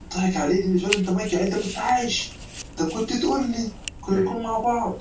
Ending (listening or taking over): listening